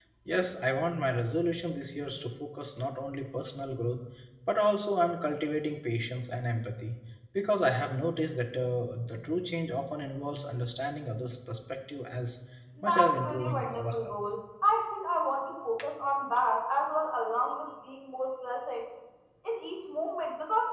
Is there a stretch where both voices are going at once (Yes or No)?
Yes